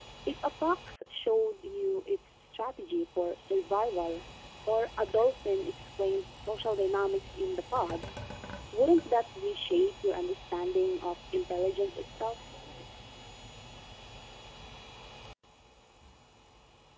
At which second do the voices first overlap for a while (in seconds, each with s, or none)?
none